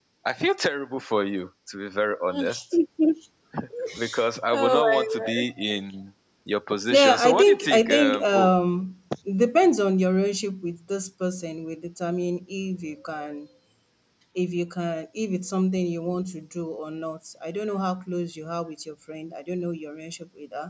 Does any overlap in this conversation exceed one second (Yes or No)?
Yes